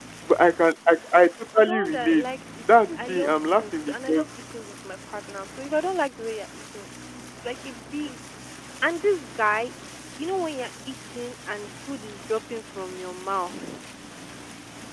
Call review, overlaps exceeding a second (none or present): present